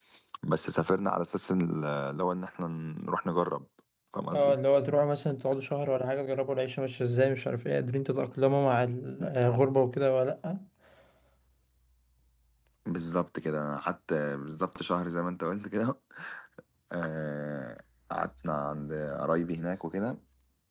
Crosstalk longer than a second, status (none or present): none